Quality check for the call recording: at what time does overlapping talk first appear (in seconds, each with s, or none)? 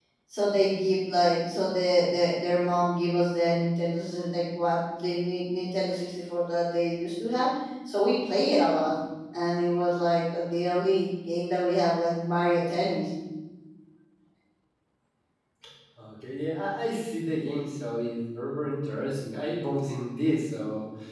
none